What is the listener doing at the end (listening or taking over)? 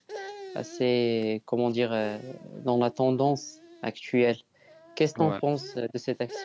listening